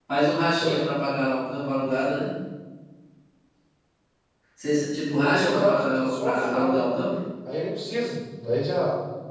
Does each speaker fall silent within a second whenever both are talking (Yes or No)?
No